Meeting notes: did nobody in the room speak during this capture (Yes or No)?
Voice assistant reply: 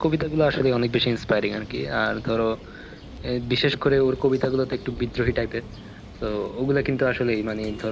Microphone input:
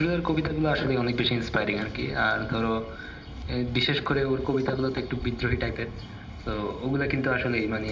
Yes